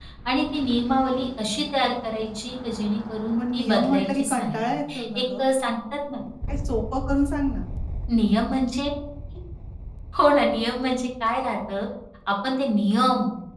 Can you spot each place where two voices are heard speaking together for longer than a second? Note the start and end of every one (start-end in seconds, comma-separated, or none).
3.4-4.6